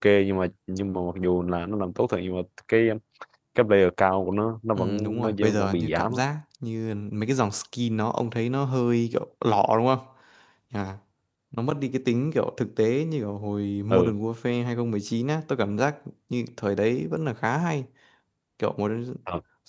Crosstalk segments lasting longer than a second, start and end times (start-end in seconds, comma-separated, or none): 4.8-6.2